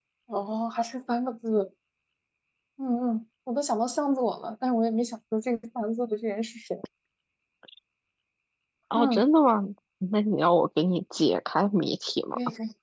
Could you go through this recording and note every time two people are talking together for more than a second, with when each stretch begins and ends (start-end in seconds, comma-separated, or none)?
none